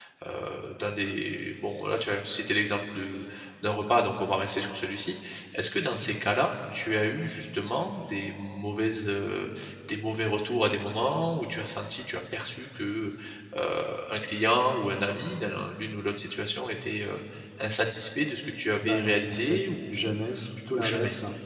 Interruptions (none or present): present